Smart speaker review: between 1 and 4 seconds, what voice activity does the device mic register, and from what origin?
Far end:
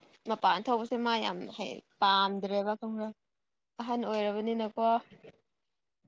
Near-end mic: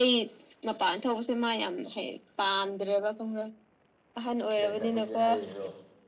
echo only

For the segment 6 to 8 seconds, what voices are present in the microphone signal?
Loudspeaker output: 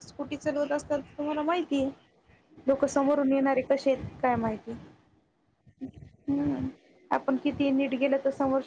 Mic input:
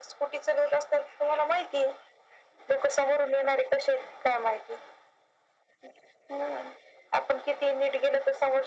echo only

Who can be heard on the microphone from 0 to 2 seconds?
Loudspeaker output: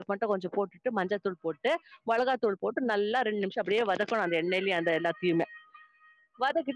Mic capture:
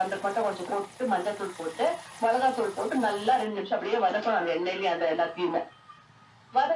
echo only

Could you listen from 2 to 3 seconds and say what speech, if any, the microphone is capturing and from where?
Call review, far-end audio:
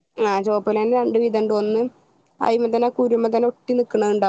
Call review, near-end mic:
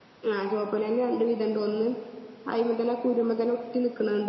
echo only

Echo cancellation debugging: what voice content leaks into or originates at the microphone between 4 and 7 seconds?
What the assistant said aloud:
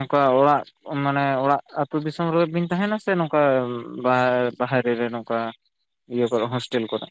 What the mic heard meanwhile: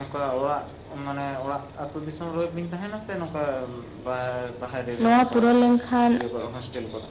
both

